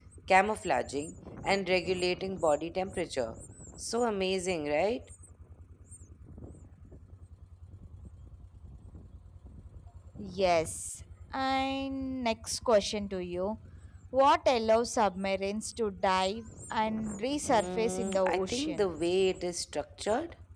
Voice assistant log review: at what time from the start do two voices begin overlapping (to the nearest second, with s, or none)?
17 s